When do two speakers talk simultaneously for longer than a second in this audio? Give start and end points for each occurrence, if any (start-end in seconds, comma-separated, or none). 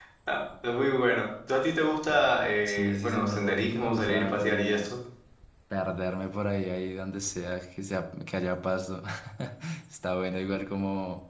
2.6-4.9